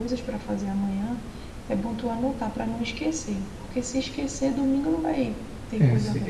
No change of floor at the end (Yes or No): No